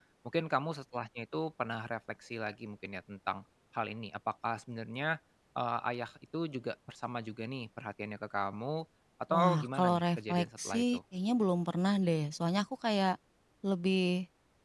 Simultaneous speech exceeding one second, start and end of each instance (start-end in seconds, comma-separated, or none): 9.3-11.0